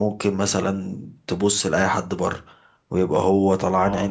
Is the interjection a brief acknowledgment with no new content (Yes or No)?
Yes